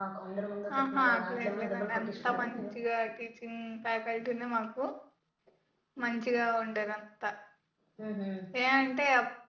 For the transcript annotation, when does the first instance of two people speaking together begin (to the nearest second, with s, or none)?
1 s